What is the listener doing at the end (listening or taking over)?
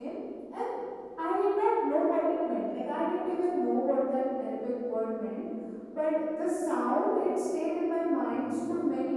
listening